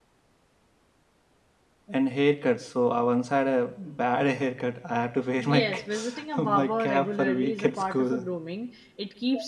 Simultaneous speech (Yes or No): Yes